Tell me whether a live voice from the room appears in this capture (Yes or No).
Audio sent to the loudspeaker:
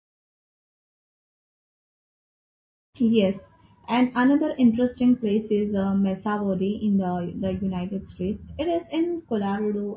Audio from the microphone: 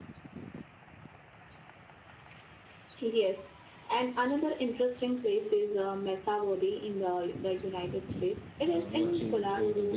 Yes